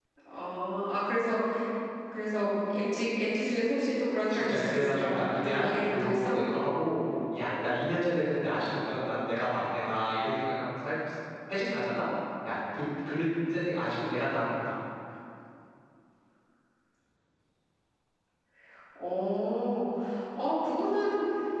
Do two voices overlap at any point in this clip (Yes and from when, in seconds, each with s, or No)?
Yes, from 4.3 s